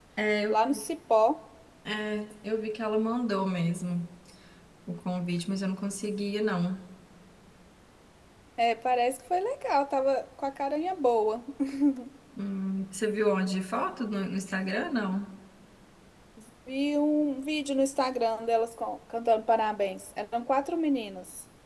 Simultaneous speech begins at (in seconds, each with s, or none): none